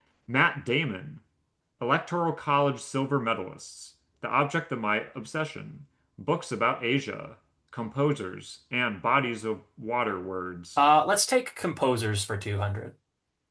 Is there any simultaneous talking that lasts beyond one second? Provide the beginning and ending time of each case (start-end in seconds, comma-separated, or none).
none